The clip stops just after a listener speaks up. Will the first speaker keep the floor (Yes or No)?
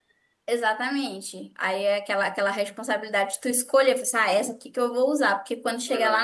Yes